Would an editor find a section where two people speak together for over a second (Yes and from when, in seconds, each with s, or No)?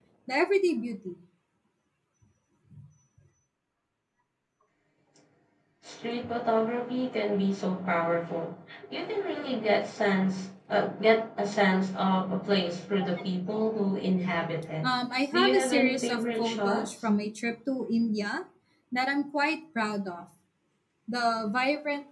Yes, from 15.3 s